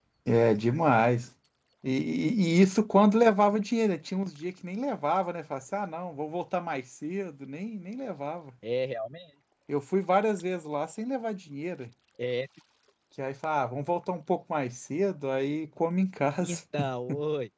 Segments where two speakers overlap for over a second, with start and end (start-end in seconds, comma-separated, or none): none